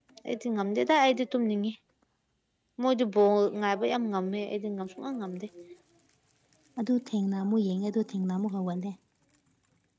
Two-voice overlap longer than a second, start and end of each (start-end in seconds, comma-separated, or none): none